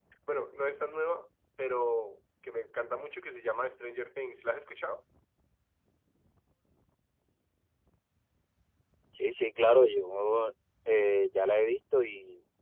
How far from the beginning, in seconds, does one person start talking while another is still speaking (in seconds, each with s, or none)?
none